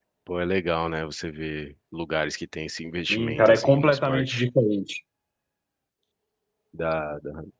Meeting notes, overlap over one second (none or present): present